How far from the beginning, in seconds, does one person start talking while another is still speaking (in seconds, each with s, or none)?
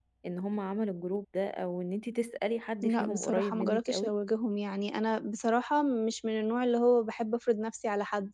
2.8 s